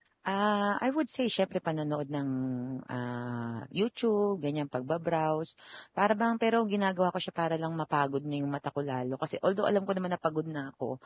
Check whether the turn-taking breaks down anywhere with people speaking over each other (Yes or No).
No